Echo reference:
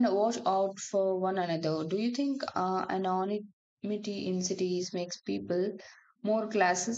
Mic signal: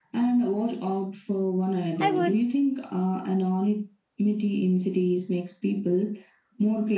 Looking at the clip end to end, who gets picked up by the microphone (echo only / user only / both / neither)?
both